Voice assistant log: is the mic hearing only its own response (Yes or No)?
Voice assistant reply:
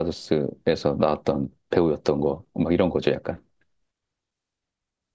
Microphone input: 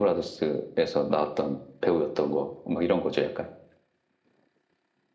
Yes